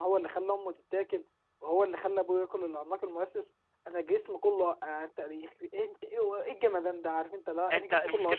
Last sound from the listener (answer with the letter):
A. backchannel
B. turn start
B